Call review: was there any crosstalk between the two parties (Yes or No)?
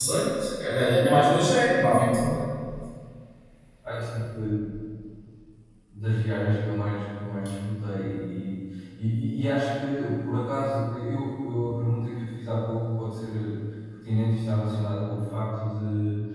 No